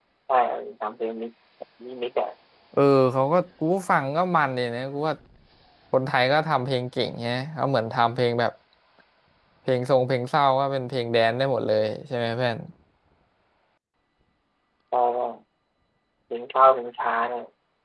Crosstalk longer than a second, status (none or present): none